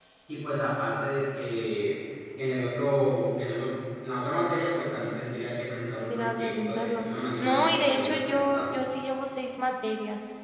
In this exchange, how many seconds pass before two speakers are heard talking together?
6.1 s

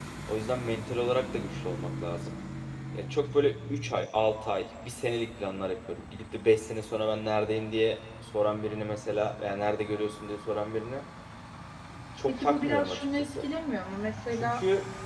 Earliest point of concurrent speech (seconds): 12.3 s

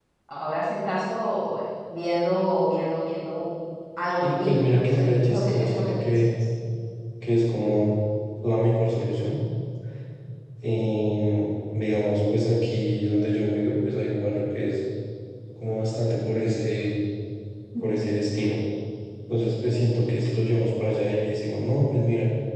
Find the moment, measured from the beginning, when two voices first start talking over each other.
4.2 s

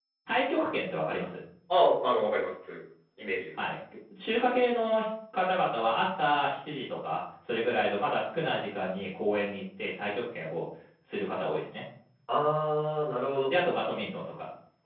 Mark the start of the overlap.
none

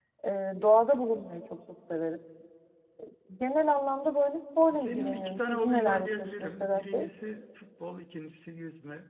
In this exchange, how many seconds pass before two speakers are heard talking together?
4.7 s

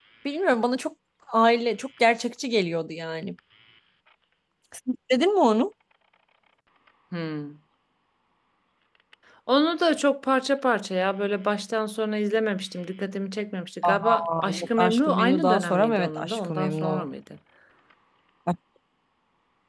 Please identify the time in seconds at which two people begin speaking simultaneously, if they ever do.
13.8 s

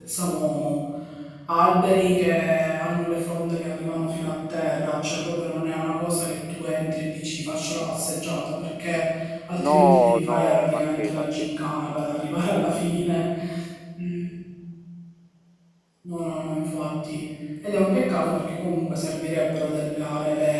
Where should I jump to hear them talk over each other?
9.7 s

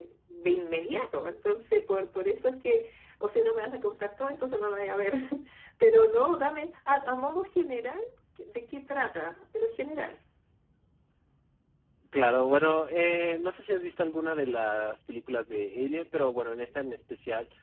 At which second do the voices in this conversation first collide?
none

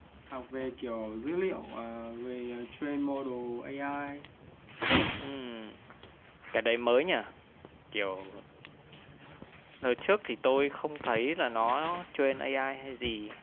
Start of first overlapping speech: none

